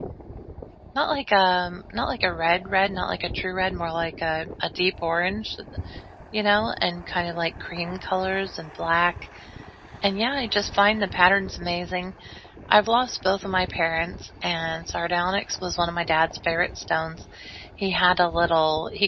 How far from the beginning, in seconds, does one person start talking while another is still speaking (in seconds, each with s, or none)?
none